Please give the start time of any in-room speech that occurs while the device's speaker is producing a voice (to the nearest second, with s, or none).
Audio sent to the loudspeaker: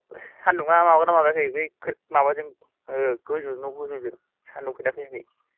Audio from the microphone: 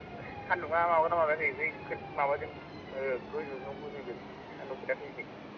none